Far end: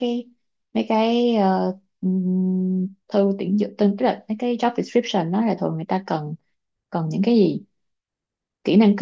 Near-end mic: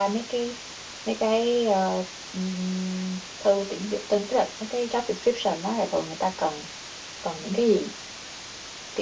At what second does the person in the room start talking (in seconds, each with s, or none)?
none